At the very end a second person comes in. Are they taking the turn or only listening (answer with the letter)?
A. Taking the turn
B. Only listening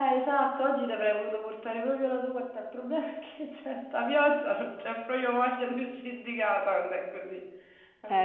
A